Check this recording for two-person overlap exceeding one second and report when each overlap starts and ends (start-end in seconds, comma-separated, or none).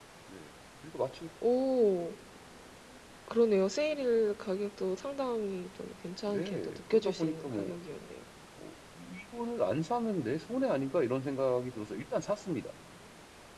6.3-7.8